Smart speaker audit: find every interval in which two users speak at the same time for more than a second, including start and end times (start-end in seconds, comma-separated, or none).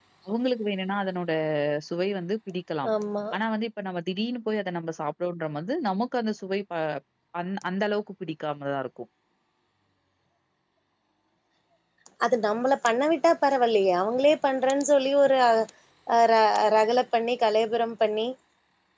none